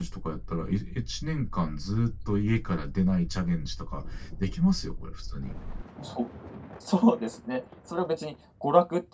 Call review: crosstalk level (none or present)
none